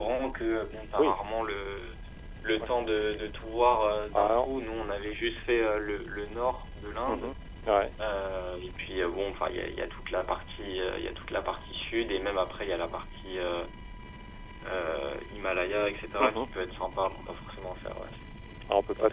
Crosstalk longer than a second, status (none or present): none